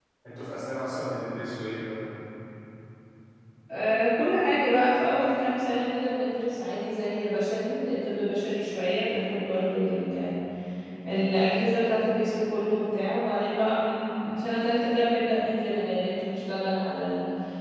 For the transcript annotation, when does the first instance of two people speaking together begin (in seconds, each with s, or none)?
none